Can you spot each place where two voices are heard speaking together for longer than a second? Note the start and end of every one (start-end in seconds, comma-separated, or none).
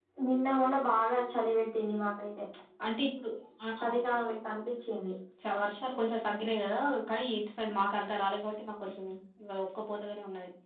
none